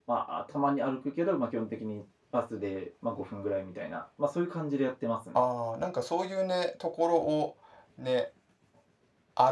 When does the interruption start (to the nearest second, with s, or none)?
none